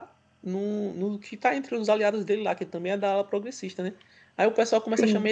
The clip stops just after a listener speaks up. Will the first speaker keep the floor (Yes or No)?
Yes